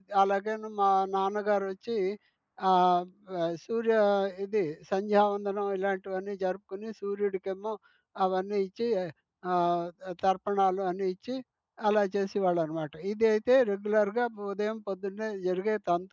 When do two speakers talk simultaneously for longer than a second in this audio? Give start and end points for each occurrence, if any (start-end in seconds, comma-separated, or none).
none